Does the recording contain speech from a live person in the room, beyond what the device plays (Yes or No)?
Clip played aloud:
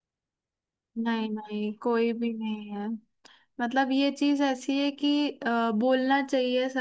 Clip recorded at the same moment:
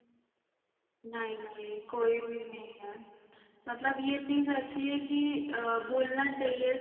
No